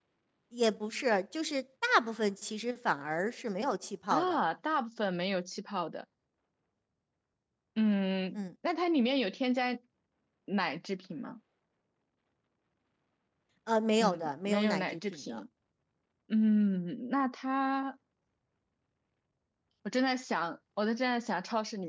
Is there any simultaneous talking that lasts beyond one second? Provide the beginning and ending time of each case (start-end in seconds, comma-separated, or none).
14.0-15.4